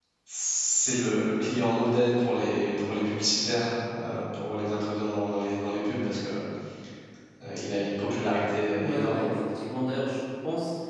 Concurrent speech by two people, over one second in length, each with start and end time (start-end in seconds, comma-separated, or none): none